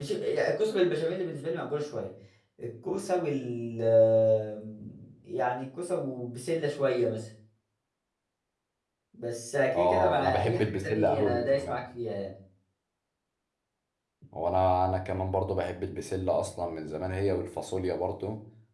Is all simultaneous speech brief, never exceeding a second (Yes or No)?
No